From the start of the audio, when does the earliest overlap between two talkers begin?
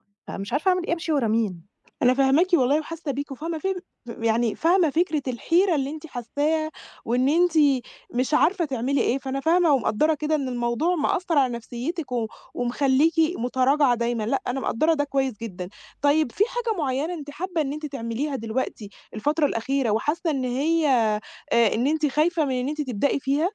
none

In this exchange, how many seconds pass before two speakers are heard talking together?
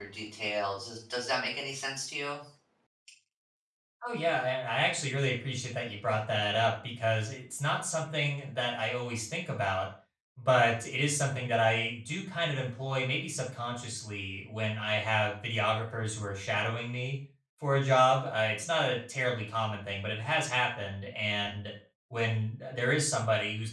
none

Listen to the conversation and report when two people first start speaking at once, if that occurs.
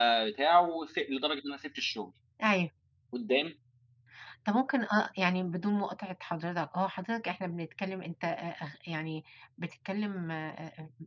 none

